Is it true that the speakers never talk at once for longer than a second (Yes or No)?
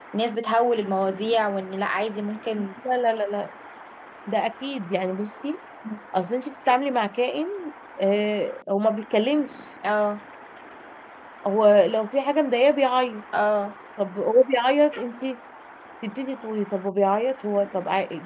Yes